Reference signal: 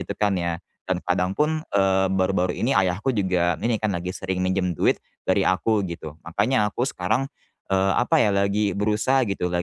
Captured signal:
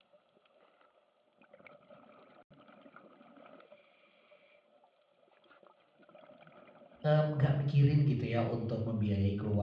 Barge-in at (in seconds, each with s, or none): 7.0 s